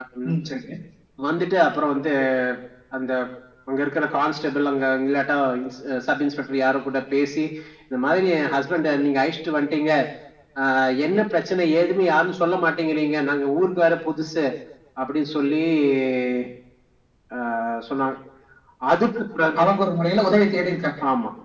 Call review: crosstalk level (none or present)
none